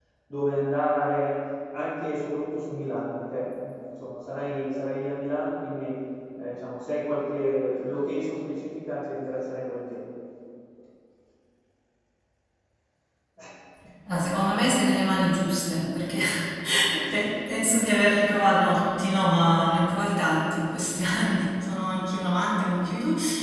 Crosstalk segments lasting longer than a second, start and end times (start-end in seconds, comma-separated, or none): none